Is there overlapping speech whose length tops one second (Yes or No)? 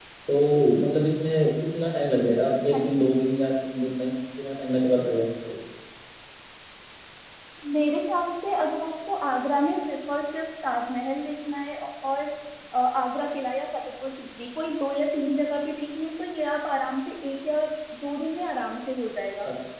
No